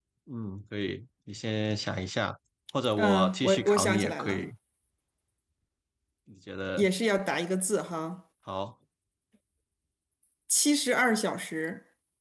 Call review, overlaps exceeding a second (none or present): present